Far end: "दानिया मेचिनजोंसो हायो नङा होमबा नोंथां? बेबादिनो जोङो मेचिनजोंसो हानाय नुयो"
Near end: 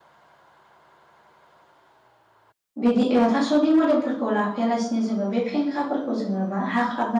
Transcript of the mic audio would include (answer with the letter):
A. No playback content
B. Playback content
A